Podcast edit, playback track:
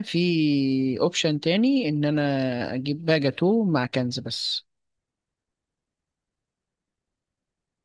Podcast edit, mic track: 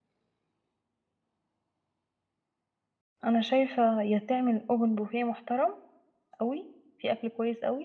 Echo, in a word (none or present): none